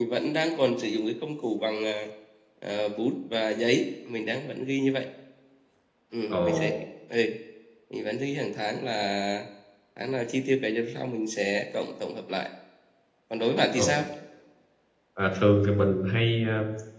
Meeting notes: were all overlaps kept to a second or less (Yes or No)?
Yes